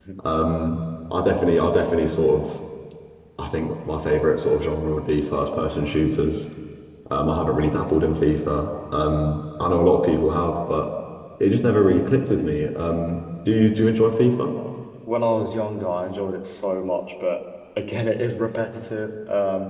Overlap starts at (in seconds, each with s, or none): none